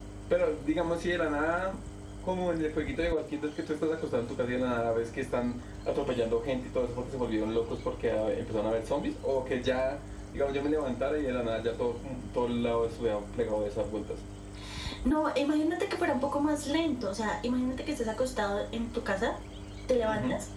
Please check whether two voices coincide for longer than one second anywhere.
No

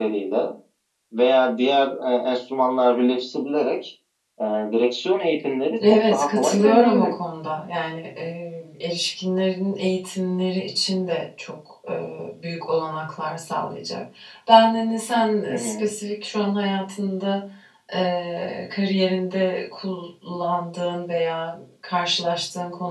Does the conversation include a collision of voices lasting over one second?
Yes, from 5.9 s

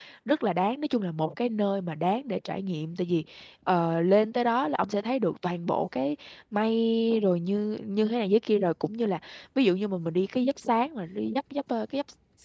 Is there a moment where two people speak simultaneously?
No

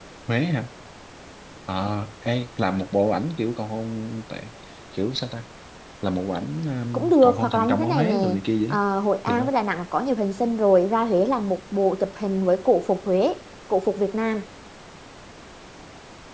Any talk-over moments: Yes, from 6.9 s

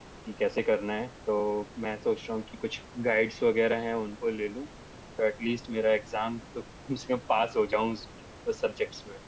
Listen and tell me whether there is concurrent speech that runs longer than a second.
No

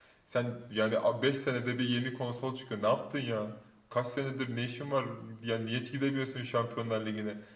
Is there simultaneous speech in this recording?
No

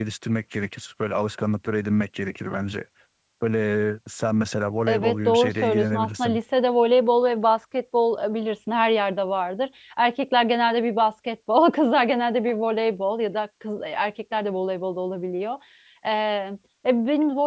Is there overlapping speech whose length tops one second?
Yes, from 4.9 s

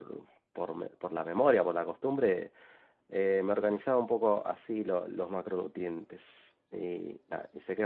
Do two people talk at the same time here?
No

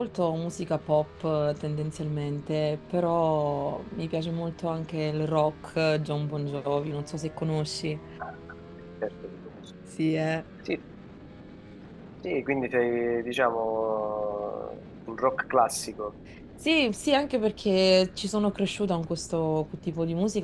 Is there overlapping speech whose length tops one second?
No

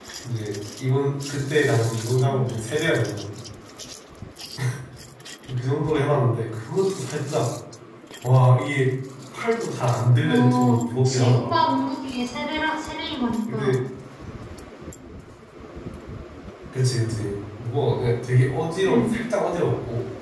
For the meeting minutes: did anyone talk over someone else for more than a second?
Yes, from 10.2 s

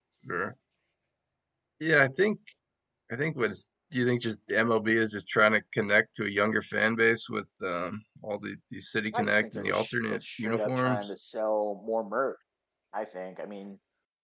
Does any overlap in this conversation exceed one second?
Yes, from 9.1 s

